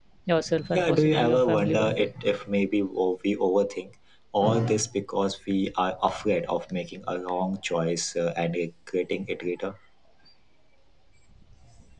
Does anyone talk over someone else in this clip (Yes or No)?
Yes